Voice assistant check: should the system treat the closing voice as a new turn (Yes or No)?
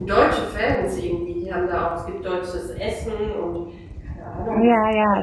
Yes